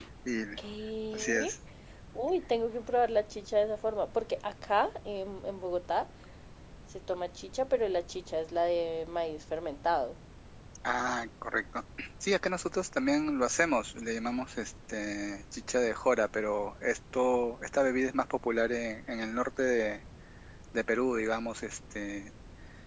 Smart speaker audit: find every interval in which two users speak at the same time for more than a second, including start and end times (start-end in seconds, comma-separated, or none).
none